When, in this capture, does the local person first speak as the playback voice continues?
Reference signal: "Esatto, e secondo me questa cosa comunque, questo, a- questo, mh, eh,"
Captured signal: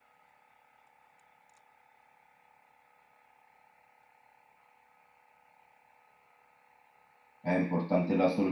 7.4 s

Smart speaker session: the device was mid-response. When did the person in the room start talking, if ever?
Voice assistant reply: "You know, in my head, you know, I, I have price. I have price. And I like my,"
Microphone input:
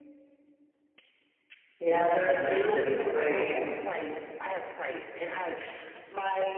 1.8 s

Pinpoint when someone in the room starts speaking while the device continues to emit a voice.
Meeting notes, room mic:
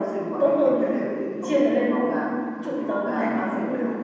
none

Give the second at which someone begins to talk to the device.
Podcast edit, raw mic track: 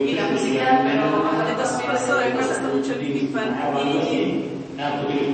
1.4 s

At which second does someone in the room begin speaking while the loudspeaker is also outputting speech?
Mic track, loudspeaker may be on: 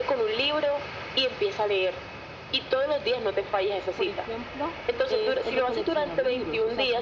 3.9 s

